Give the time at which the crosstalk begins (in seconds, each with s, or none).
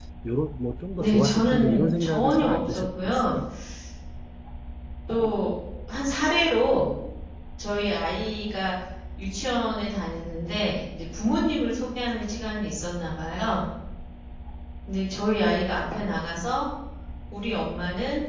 1.0 s